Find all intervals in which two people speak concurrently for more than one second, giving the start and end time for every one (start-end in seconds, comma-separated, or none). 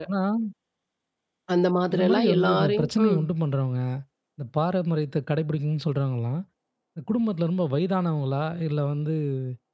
1.9-3.2